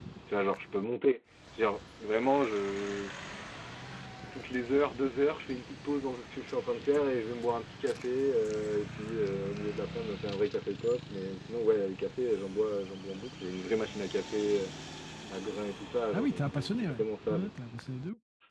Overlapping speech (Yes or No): Yes